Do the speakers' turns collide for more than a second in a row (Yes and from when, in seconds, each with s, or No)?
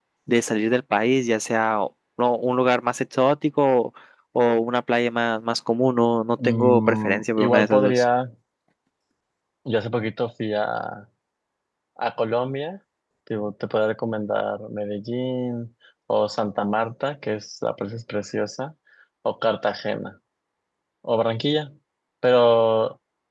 Yes, from 6.4 s